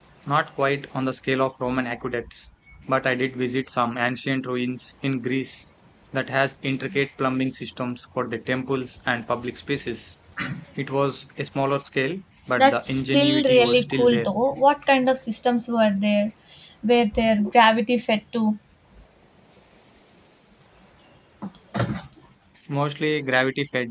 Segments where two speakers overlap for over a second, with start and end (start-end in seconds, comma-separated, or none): 12.6-14.3